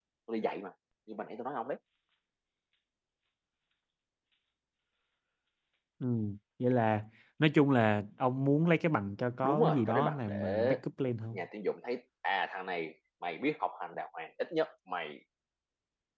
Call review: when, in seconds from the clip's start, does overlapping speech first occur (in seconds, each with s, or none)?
9.4 s